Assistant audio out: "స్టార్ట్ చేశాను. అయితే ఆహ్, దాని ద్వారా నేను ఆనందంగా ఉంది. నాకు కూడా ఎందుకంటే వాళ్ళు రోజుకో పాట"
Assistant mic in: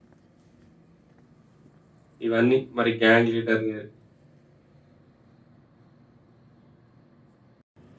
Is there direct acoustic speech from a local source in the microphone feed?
Yes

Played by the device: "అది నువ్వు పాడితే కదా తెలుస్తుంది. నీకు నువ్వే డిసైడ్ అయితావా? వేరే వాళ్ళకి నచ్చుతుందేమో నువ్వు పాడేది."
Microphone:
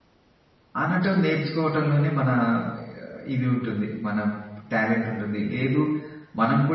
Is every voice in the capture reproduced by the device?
No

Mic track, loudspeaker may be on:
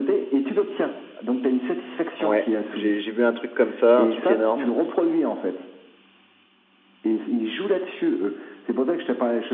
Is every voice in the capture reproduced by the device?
No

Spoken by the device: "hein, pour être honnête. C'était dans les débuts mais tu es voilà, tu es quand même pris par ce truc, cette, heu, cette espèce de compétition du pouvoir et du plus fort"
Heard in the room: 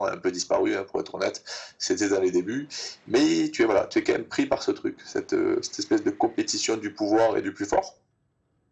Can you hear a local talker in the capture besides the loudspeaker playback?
No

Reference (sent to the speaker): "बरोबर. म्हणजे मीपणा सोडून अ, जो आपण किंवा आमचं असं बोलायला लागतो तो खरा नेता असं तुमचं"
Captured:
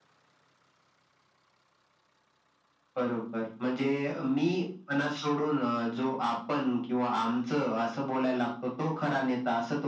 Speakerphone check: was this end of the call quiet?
Yes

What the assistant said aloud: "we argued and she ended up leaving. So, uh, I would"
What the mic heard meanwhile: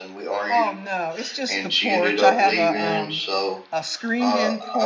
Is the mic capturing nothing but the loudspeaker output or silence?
No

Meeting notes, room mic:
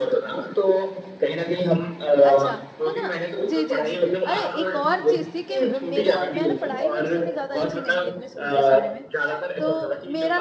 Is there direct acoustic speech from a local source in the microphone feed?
Yes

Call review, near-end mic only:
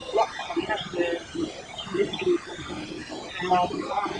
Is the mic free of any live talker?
Yes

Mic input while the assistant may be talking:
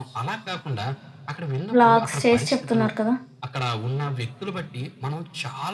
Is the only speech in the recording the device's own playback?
No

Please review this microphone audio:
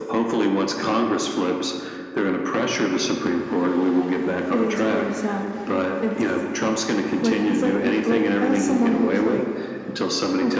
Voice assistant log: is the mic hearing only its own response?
Yes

